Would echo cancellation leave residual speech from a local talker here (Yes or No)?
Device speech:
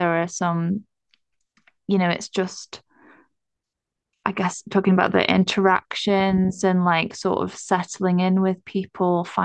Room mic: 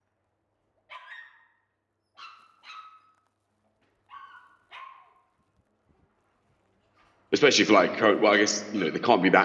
Yes